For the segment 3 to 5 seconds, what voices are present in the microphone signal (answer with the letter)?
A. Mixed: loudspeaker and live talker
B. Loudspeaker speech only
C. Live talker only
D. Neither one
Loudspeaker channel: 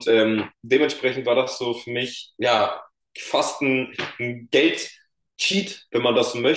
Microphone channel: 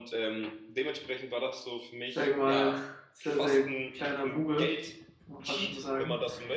A